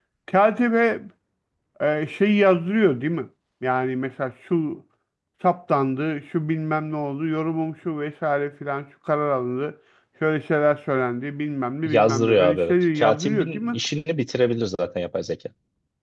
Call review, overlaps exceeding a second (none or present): present